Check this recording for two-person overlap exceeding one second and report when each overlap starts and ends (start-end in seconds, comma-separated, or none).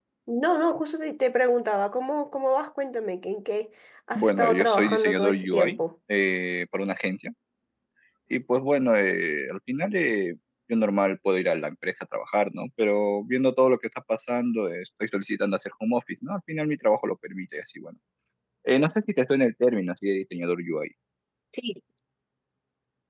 4.1-5.8